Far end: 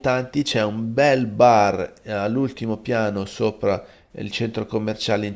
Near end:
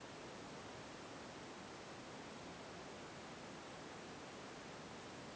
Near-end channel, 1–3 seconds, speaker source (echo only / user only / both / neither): neither